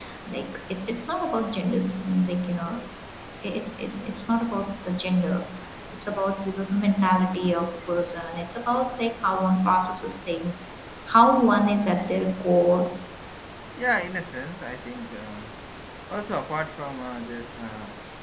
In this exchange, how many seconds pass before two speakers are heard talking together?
none

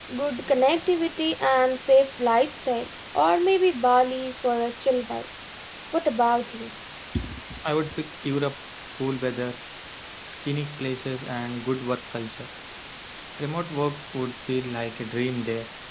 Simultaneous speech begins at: none

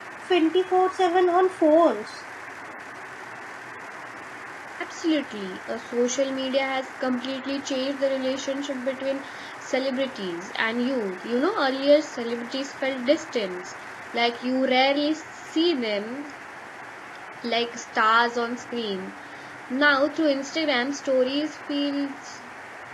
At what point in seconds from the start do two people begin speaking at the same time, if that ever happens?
none

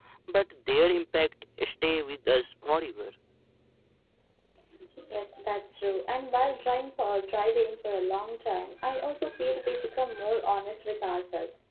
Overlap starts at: none

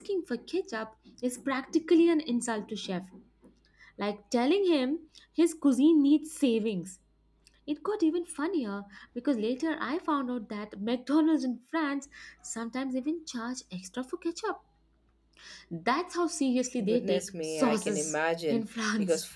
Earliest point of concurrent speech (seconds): 16.8 s

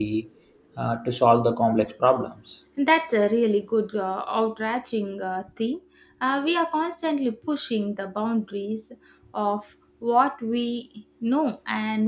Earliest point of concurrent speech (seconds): none

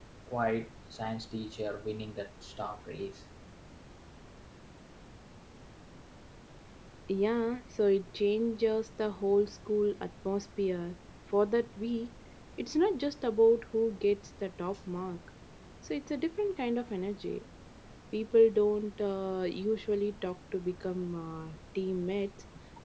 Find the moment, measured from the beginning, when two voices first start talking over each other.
none

